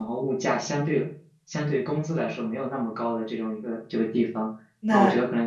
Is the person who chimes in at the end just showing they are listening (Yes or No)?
Yes